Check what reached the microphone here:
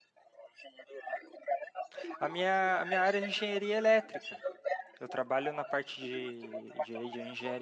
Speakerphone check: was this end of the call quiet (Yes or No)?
No